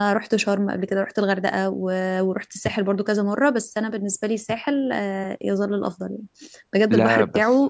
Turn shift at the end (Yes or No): No